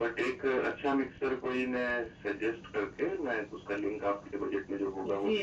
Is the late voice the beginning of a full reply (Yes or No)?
Yes